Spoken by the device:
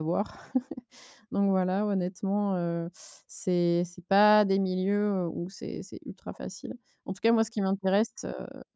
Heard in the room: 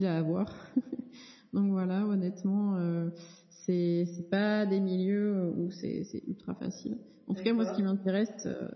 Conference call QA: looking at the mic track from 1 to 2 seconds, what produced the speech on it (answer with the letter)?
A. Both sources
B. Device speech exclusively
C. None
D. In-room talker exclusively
B